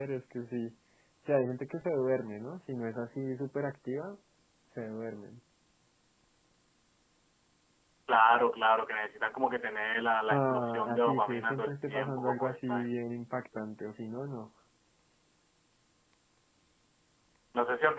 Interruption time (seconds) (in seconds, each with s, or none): 10.3 s